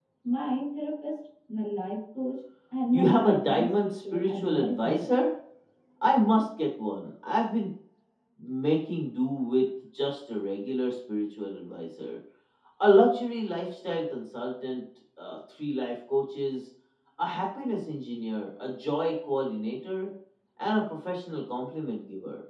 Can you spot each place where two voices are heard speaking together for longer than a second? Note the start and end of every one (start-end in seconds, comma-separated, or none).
2.9-5.0